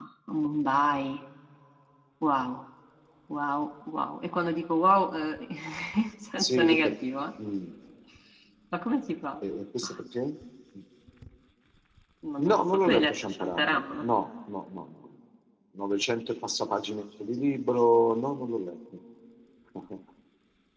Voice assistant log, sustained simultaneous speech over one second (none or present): present